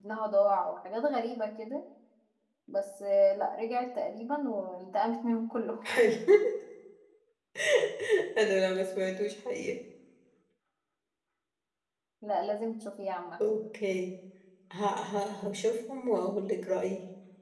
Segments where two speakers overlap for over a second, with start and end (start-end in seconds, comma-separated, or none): none